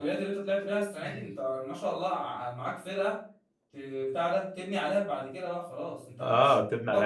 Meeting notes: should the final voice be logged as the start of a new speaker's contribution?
Yes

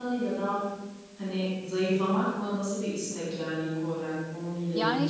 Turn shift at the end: Yes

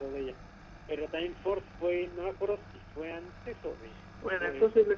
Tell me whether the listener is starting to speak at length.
Yes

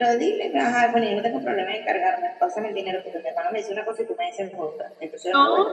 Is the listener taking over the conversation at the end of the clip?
No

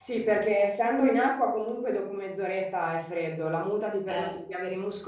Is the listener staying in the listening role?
Yes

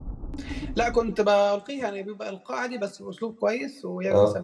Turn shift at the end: No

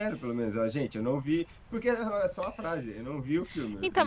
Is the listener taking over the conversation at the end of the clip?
Yes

